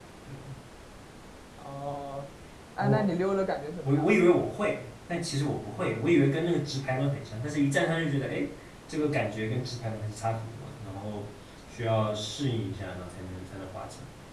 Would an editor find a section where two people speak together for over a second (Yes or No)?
No